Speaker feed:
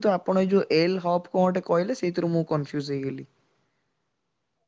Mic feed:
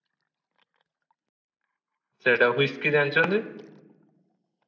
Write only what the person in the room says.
ସେଟା ହୁଇସ୍କି ଜାଣିଛନ୍ତି?

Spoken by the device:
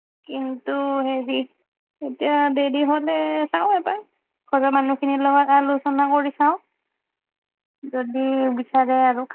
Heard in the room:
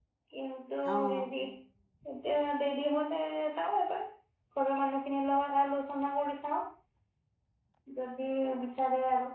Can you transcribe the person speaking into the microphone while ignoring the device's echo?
অ', অ'।

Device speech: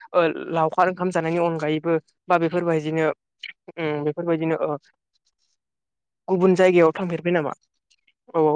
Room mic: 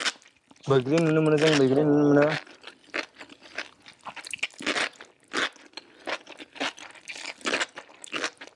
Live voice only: बैग्रि नुनो मोनो जों बैग्रि नुनो मोनो।

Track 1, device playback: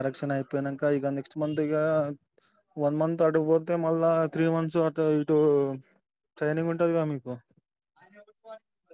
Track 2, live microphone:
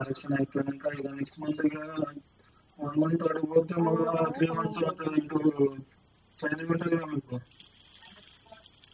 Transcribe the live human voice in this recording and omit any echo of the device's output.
అది అయిపో గానే ఖమ్మం పోతన్నాం

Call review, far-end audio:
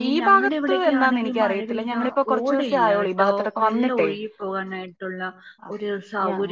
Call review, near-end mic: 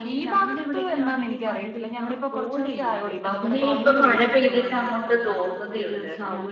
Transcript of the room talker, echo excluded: ഇവിടെ ഇപ്പ മഴ പെയ്തിട്ട് അങ്ങോട്ട് തോർന്നതെയുള്ള

